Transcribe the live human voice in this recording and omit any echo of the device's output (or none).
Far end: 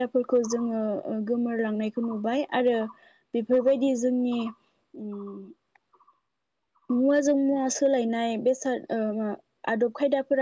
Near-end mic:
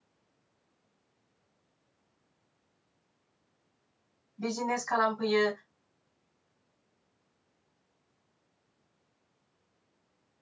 बिजिनेस खालामफैयो